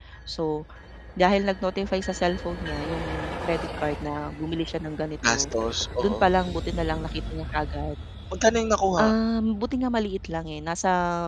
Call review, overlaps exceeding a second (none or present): none